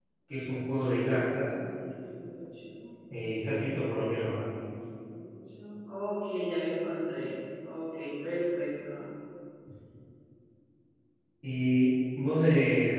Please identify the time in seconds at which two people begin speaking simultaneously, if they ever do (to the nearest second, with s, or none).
none